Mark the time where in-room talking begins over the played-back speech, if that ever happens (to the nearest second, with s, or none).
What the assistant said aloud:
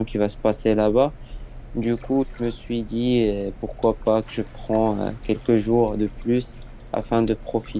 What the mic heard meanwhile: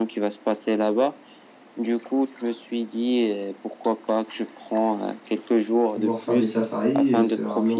6 s